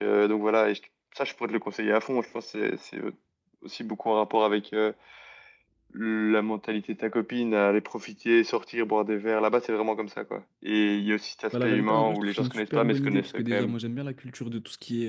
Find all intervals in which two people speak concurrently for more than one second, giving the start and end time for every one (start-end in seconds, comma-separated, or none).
11.5-13.7